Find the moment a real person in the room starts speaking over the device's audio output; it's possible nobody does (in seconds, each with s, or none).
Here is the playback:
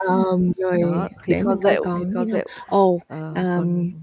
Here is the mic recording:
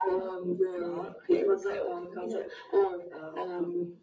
none